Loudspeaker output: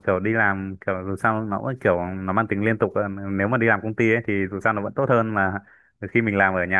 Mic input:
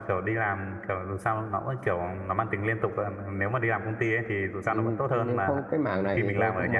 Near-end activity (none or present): present